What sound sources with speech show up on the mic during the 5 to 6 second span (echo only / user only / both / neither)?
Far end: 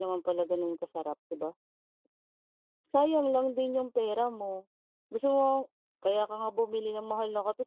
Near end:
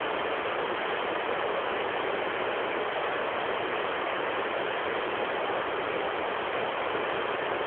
neither